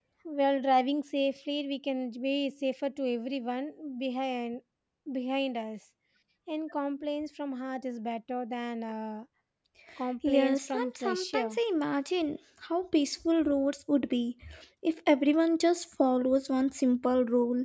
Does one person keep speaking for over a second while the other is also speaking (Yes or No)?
Yes